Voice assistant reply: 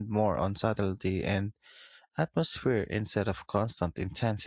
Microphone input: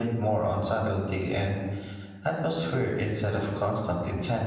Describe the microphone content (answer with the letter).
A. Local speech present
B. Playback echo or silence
B